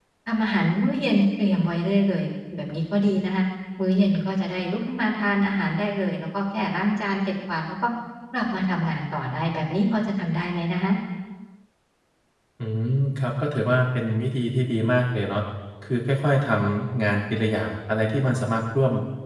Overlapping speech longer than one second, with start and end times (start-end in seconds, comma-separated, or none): none